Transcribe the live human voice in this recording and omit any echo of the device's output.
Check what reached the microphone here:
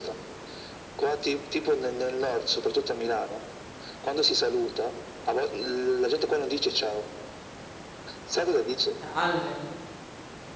Ah. Salve,

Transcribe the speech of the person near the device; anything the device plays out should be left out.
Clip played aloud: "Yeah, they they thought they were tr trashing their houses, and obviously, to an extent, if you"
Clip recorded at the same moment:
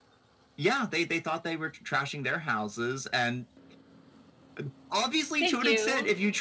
thank you.

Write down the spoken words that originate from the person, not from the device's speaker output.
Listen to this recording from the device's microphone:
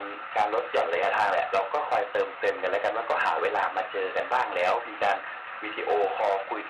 none

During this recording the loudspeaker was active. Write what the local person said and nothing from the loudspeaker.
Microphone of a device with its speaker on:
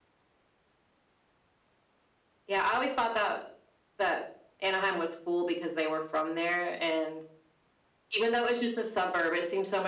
none

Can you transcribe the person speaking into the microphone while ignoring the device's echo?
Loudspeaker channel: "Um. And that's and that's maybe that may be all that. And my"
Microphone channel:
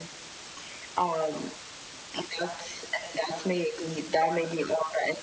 none

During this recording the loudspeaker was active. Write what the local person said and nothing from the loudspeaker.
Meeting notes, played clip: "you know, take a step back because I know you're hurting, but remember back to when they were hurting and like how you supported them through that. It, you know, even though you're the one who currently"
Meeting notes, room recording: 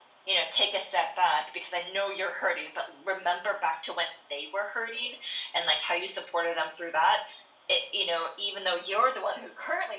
none

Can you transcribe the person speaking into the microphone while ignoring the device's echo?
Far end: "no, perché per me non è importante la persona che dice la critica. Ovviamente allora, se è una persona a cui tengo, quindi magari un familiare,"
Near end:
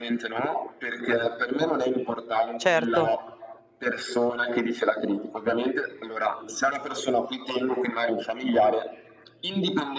certo.

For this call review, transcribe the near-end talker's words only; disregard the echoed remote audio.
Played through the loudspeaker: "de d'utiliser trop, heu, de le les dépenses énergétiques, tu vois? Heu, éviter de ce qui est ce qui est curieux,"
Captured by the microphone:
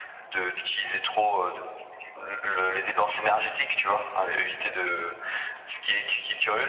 none

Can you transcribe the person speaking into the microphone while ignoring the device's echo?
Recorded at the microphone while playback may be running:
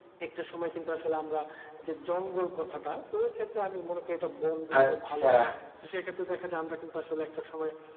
আচ্ছা।

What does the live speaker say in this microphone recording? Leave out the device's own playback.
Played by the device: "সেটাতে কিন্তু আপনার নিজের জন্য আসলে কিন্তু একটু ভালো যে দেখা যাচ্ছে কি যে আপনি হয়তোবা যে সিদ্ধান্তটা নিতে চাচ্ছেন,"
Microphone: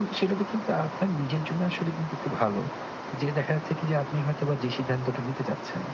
none

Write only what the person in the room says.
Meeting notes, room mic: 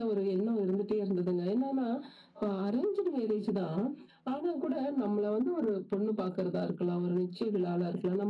none

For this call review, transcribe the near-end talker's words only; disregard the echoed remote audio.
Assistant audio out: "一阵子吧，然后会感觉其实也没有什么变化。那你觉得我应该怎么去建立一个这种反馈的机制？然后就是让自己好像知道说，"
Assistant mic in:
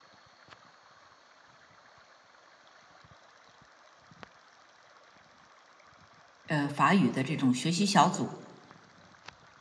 呃法语的这种学习小组，

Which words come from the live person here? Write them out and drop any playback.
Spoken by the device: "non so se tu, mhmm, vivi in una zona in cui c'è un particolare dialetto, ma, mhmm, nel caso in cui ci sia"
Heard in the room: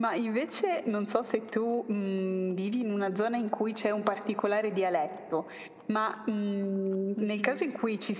mh-mh,

